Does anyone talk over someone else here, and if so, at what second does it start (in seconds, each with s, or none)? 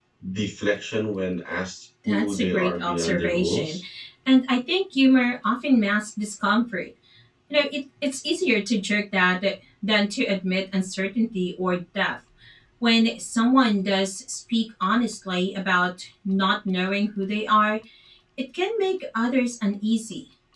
2.0 s